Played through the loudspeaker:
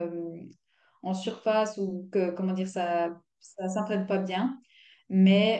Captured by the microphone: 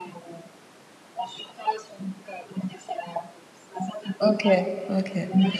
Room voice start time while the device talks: 4.2 s

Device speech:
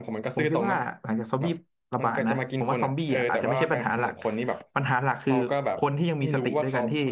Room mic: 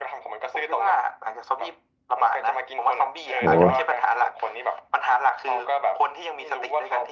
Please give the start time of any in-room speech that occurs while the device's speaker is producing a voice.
3.4 s

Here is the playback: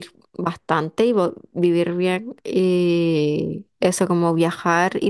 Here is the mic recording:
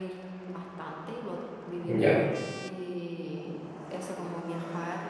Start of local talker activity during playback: 1.9 s

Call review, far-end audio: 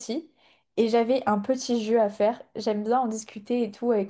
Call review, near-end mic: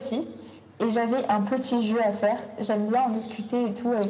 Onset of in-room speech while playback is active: none

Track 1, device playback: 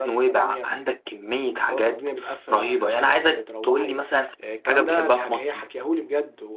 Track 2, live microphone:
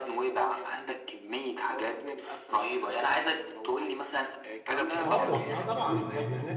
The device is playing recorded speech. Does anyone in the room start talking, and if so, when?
4.9 s

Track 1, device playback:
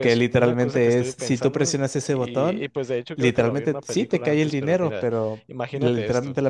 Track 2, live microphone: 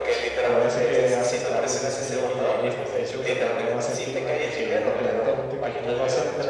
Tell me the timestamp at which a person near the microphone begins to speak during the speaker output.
0.4 s

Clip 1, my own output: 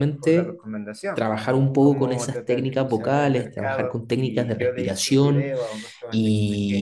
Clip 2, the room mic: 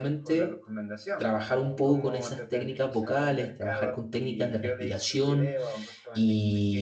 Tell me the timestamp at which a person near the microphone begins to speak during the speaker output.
none

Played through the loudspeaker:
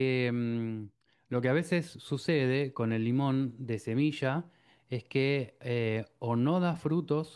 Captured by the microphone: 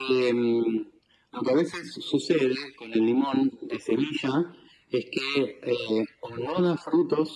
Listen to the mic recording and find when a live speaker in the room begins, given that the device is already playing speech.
none

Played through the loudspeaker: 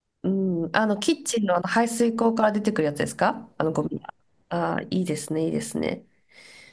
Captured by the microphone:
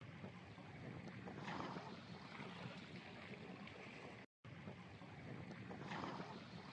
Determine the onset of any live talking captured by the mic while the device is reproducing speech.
none

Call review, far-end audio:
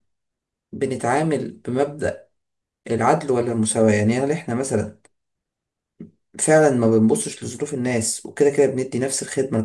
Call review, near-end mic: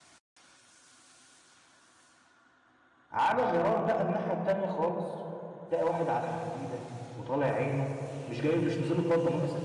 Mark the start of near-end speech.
3.1 s

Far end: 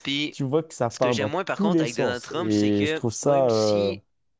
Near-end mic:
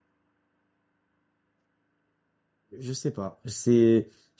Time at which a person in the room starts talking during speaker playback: 2.8 s

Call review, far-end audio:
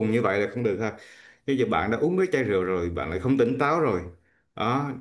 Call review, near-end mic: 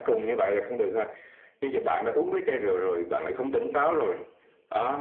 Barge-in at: none

